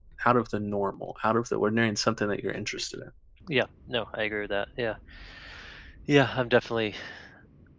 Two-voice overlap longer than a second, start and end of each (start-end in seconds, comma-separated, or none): none